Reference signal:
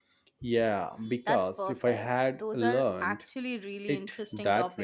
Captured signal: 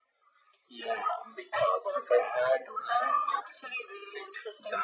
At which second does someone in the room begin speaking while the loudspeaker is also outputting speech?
none

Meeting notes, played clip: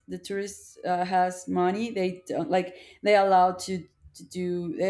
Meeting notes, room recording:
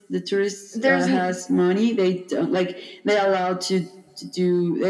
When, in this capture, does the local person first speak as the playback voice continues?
1 s

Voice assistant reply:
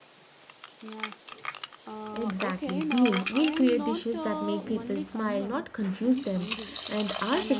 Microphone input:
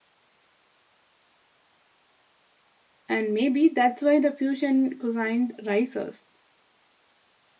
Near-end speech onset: 3 s

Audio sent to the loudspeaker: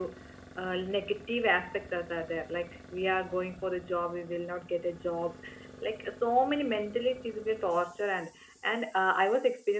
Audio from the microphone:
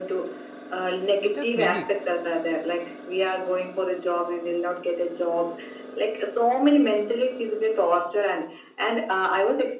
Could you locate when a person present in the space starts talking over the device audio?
1 s

